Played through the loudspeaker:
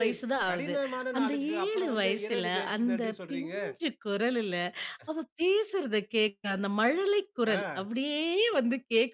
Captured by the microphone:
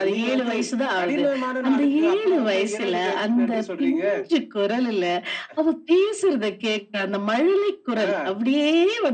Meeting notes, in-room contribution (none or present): none